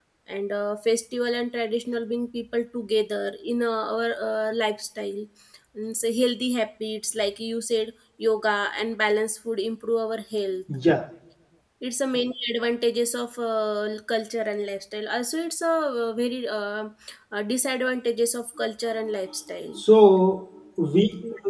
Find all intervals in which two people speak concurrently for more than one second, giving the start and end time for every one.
none

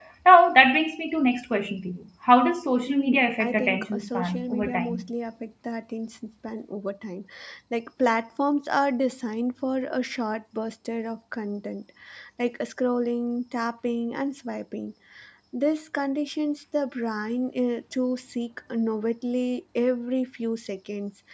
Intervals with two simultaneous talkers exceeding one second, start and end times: 2.9-5.1

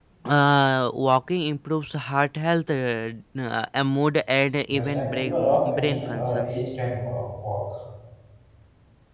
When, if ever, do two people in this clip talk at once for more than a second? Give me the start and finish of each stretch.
4.7-6.5

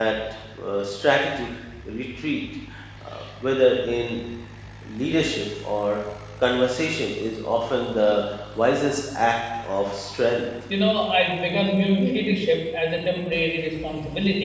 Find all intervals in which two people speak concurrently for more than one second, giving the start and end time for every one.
none

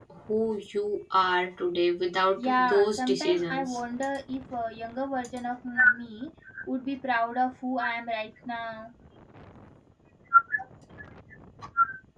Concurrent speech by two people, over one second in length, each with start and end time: 2.4-3.8

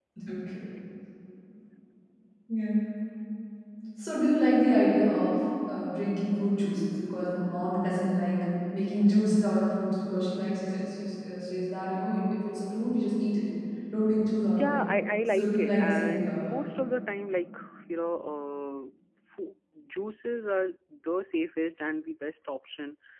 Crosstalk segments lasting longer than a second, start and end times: 15.3-16.6

